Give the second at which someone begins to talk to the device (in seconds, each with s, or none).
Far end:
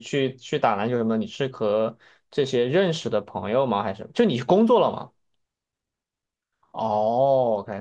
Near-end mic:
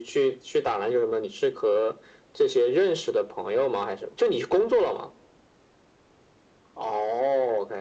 none